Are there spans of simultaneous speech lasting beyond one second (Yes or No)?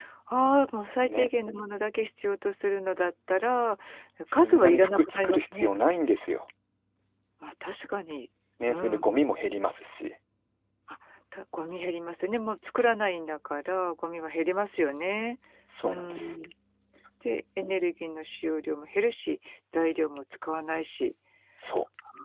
Yes